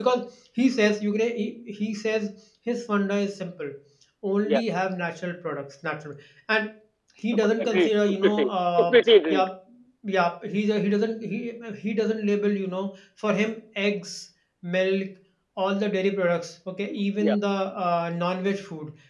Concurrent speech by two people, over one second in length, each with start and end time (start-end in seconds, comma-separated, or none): 7.3-8.9